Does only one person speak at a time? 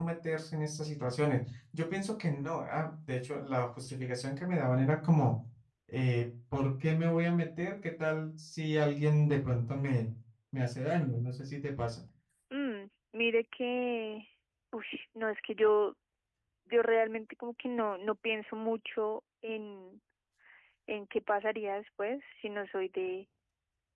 Yes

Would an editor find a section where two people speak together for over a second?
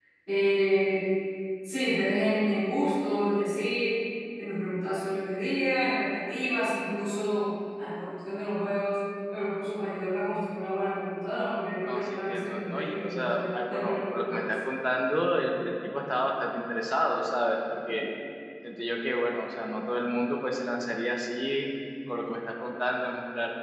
Yes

